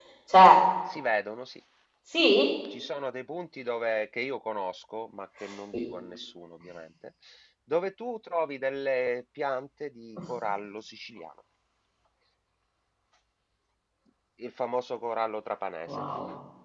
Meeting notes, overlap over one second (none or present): none